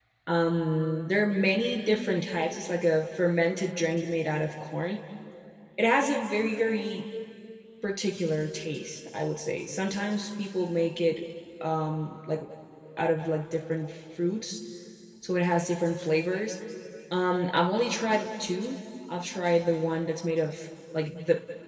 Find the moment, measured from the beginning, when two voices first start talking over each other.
none

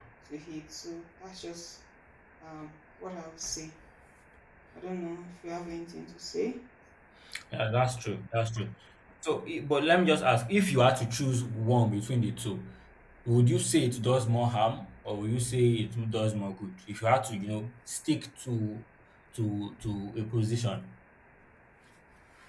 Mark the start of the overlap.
none

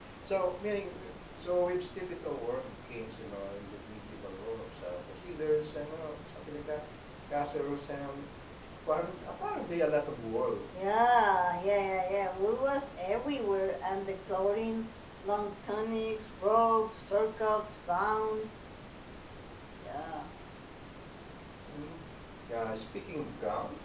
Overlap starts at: none

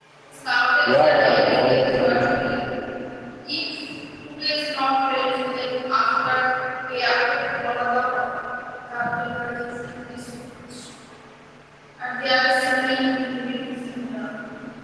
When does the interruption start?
0.8 s

